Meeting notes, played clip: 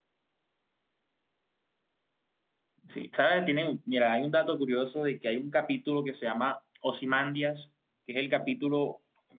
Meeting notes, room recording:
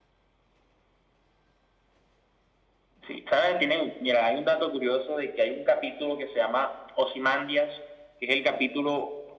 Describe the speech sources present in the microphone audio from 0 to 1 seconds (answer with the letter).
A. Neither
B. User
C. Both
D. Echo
A